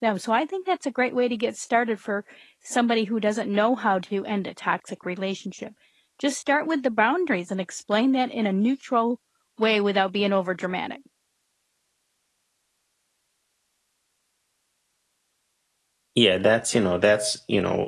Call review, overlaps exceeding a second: none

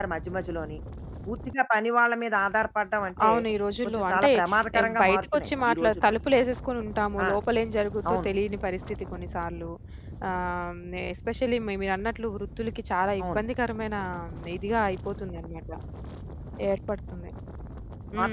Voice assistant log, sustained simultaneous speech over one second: present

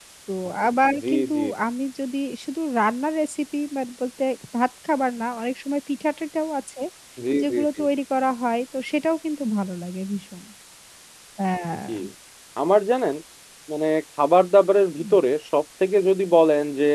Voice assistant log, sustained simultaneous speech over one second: none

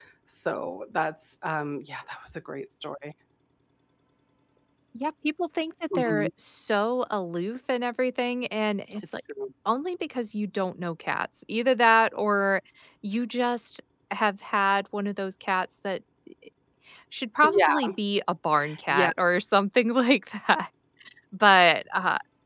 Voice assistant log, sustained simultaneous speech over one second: none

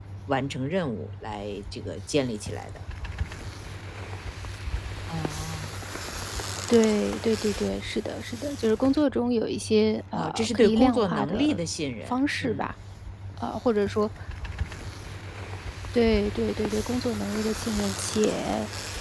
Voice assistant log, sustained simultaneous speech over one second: present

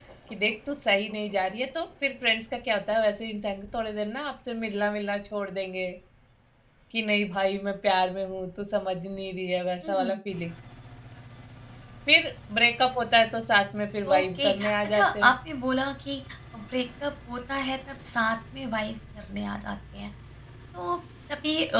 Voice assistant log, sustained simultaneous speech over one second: present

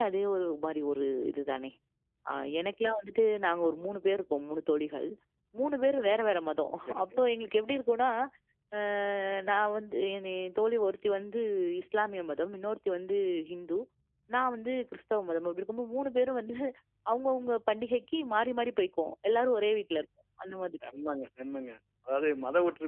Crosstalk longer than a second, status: none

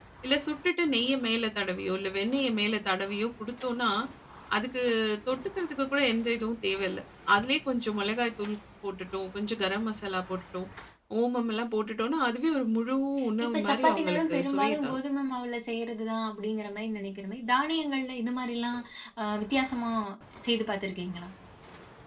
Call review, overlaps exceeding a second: present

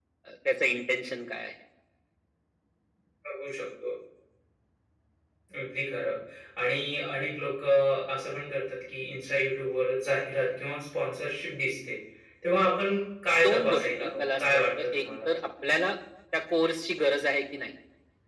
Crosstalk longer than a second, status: present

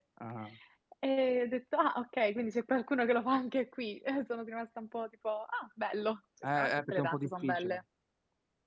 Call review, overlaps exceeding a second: present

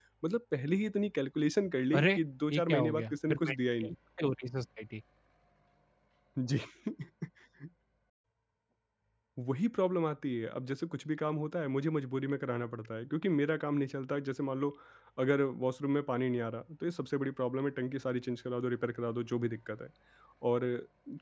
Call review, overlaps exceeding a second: present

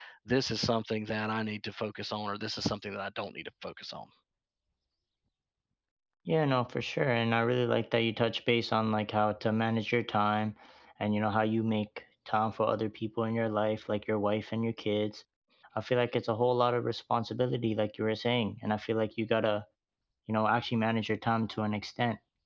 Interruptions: none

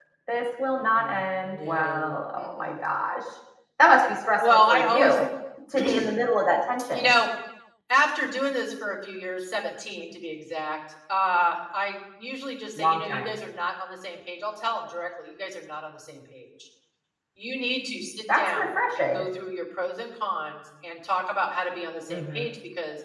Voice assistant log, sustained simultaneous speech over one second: present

